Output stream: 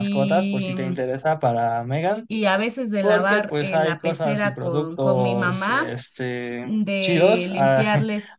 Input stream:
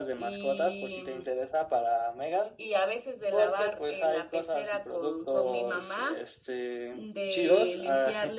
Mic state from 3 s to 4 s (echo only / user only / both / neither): echo only